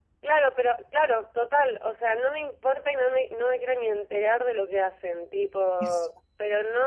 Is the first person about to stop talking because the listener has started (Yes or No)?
No